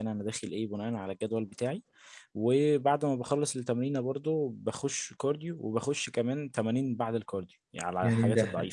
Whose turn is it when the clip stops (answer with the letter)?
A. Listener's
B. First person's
A